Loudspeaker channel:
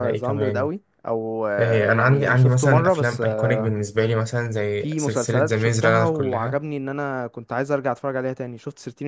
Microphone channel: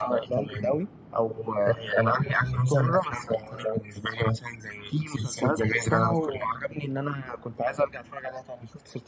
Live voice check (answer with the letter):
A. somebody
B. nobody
B